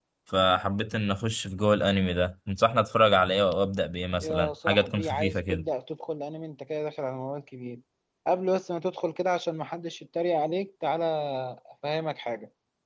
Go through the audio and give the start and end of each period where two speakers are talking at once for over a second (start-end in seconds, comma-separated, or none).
4.2-5.7